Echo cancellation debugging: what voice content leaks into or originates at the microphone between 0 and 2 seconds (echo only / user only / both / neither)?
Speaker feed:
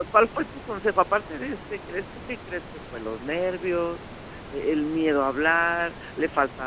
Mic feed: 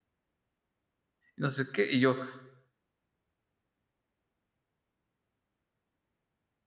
user only